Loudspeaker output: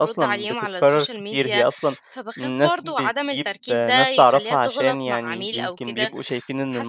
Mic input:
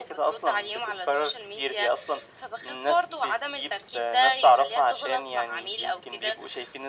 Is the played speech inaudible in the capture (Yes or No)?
No